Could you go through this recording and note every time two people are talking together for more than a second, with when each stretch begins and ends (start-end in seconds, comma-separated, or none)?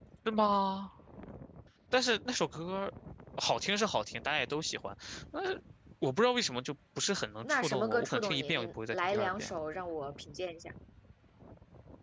7.4-9.6